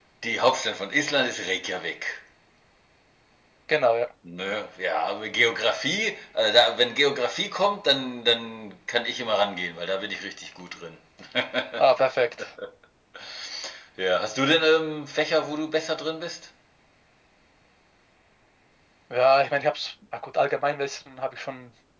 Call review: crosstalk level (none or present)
none